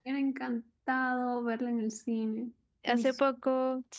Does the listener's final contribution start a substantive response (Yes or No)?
Yes